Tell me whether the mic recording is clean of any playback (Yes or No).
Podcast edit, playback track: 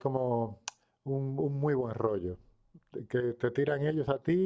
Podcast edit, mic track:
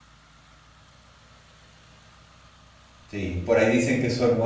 Yes